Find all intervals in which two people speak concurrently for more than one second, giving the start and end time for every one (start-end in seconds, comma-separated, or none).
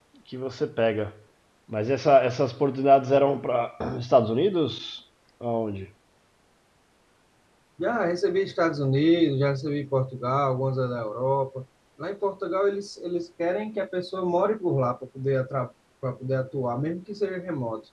none